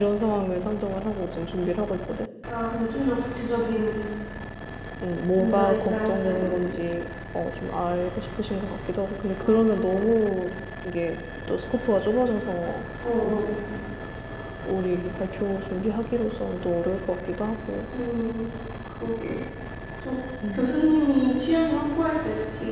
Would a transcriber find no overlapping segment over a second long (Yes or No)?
No